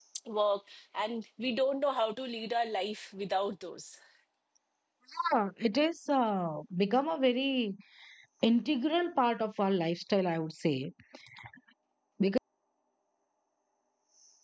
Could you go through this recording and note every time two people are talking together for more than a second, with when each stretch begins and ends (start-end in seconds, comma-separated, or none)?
none